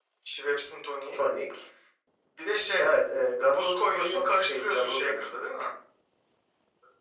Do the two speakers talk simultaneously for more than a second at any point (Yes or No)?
Yes